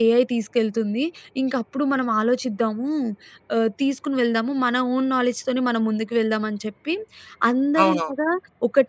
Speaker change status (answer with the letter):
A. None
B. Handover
A